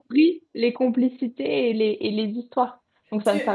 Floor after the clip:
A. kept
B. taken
B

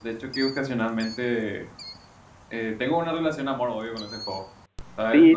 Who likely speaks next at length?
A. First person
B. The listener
B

